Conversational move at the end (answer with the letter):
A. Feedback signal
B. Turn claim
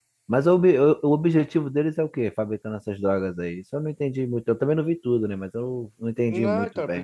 B